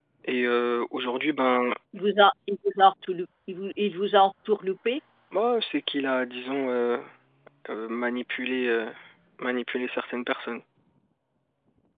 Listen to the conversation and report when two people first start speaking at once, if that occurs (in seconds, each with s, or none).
none